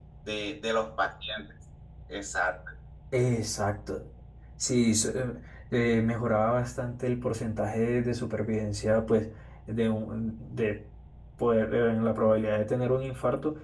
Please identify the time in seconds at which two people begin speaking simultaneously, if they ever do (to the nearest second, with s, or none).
none